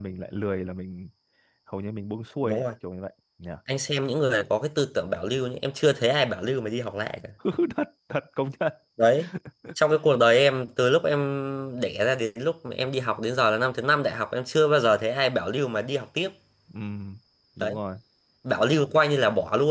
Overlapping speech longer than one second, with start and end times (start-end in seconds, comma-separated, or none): none